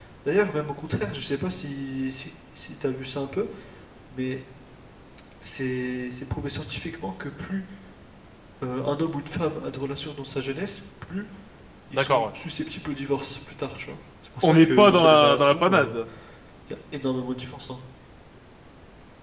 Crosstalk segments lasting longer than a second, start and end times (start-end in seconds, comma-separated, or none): 14.4-16.0